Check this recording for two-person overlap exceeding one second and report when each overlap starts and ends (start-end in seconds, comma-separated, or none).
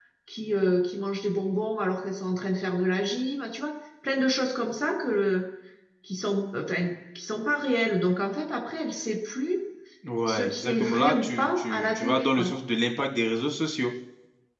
10.3-12.5